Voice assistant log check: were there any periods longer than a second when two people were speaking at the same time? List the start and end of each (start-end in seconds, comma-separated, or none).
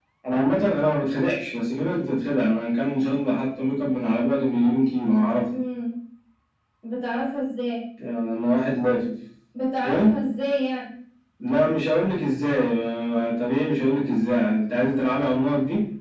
none